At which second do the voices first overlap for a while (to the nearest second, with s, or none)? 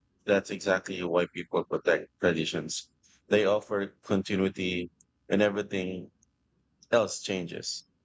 none